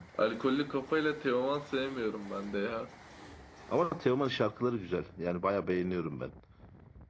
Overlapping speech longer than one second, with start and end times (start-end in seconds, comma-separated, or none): none